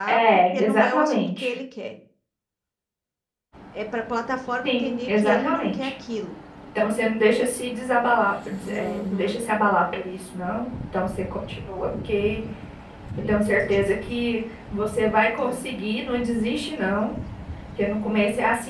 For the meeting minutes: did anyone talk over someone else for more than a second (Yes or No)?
Yes